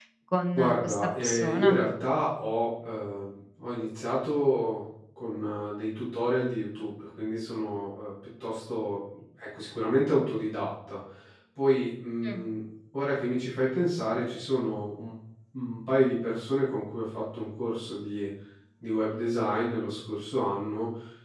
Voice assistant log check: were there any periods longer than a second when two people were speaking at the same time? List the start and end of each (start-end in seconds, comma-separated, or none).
0.5-1.8